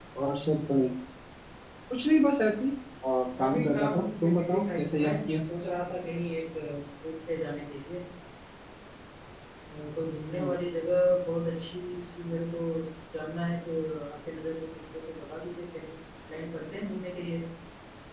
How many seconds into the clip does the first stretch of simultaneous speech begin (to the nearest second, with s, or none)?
3 s